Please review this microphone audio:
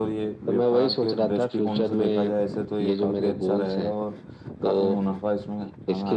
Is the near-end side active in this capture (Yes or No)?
No